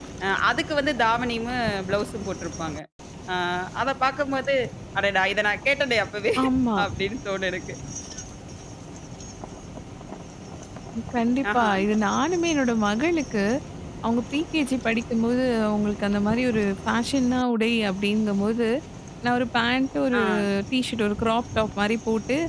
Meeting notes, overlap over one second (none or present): none